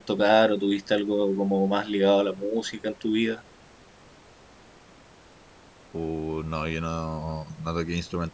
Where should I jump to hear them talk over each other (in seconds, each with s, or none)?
none